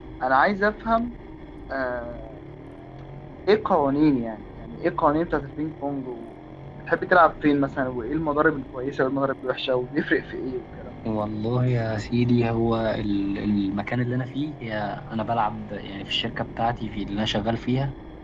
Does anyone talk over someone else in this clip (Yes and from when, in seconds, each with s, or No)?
No